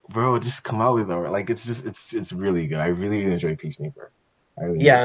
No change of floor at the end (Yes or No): No